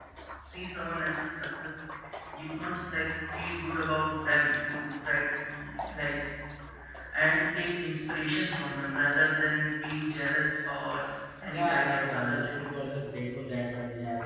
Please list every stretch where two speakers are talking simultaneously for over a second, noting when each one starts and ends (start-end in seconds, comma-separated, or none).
11.6-12.8